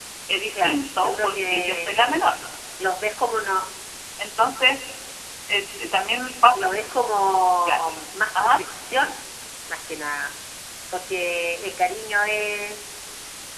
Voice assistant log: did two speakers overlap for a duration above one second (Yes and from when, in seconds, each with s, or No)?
Yes, from 0.5 s